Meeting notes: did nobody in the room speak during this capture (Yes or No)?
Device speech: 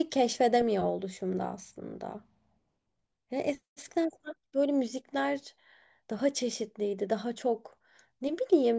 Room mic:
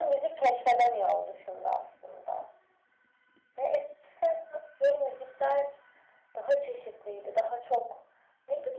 Yes